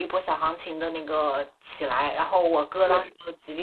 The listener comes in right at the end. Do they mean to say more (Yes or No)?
No